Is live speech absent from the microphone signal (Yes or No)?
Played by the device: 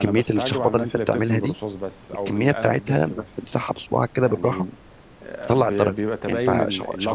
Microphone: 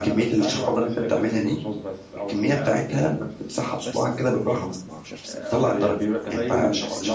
No